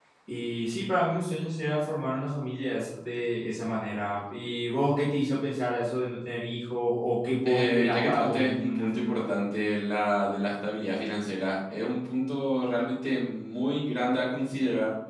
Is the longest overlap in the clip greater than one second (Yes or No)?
Yes